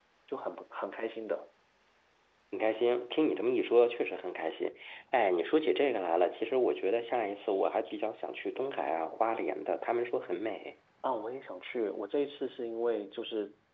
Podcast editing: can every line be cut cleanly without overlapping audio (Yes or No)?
Yes